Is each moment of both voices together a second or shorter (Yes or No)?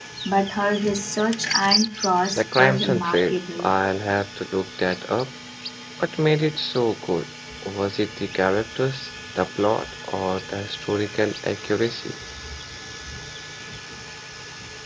No